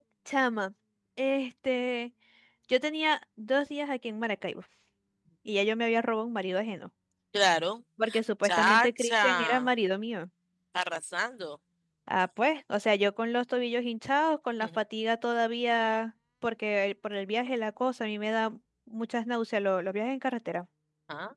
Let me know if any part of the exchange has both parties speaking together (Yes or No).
Yes